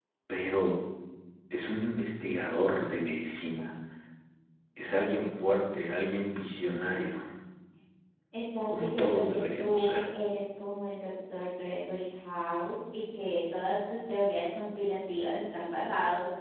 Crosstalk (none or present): present